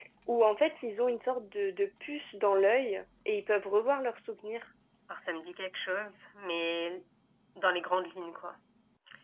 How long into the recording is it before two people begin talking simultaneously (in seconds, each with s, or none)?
none